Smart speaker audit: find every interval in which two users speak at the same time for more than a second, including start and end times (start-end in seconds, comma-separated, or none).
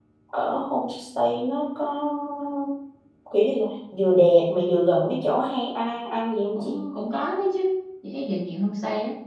none